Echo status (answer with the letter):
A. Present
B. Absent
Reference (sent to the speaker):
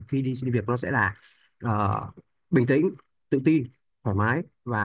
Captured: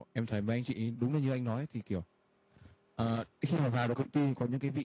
B